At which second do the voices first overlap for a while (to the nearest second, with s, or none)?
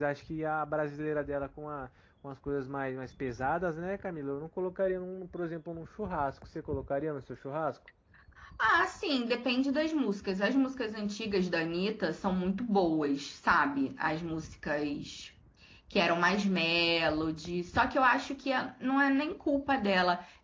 none